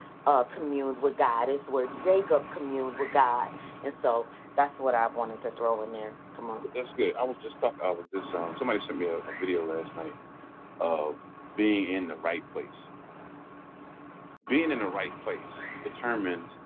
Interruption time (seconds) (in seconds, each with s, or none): none